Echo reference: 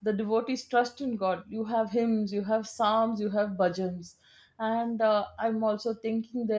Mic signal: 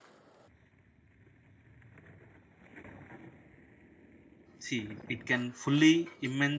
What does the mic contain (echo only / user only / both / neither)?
user only